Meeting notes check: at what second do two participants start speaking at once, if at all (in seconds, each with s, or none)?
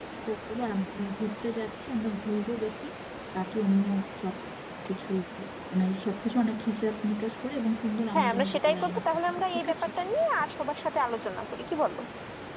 8.1 s